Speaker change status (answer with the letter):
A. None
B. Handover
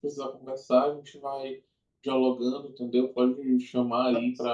A